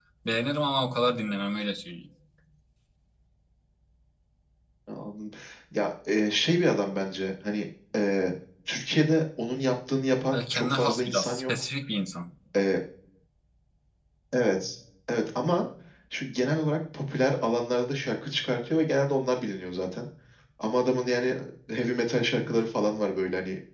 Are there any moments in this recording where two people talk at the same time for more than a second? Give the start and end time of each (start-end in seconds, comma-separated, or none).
10.3-11.5